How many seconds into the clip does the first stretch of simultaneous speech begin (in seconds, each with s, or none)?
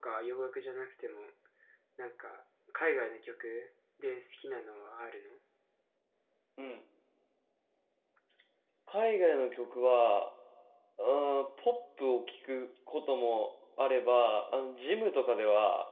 none